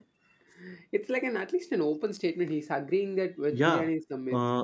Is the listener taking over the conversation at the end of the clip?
Yes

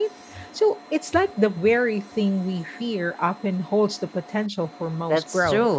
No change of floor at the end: No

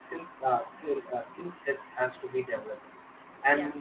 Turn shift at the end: No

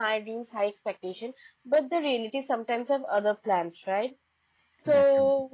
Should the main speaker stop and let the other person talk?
No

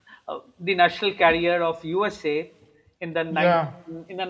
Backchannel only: Yes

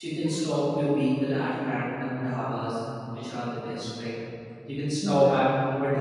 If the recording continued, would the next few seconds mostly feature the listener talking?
No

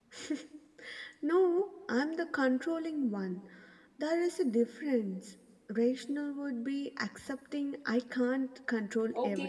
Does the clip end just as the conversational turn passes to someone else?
Yes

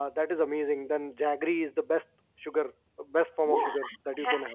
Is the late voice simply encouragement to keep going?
No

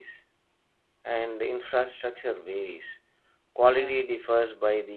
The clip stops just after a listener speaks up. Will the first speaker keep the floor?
Yes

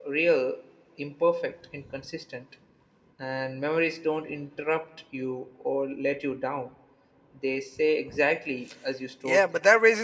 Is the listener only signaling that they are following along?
No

